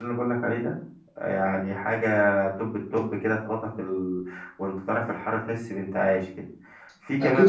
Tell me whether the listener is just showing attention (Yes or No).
No